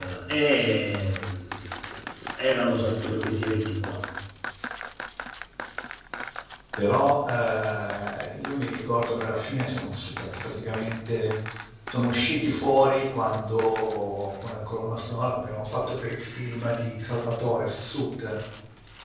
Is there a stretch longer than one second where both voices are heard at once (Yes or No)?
No